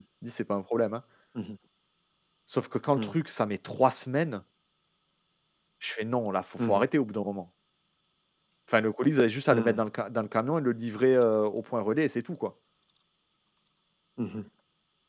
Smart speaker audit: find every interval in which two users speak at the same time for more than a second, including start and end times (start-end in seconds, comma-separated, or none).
none